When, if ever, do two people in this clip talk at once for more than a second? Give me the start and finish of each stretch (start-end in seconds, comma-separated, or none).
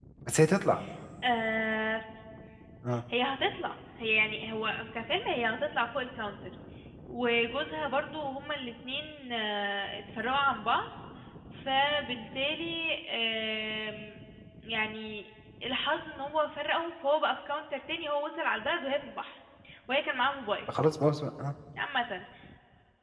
none